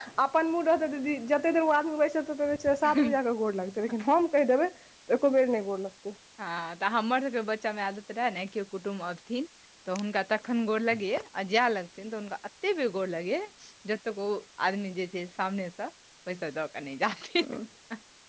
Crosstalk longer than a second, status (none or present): none